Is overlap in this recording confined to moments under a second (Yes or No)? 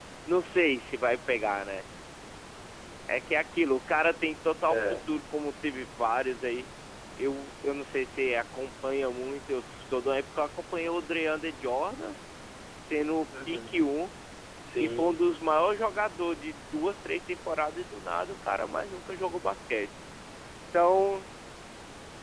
Yes